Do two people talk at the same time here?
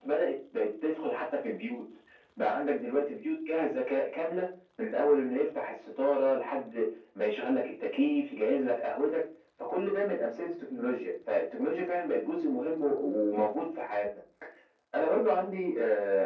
No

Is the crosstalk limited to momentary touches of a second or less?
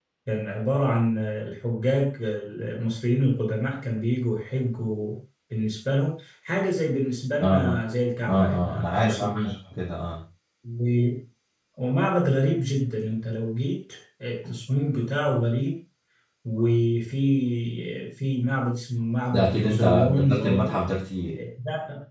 No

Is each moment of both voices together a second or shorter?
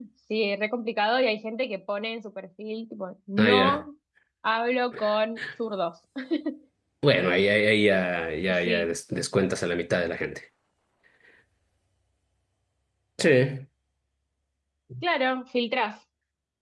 Yes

